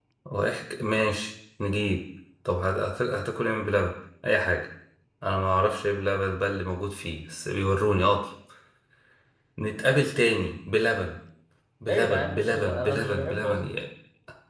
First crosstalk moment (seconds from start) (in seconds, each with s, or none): 11.9 s